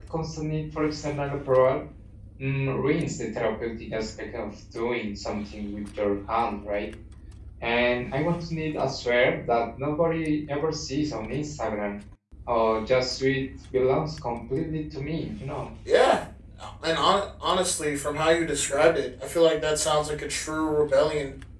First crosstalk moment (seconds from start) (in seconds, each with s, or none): none